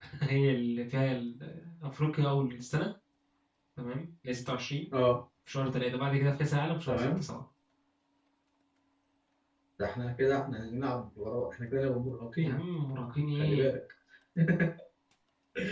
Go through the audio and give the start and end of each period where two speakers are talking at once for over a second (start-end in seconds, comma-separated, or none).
none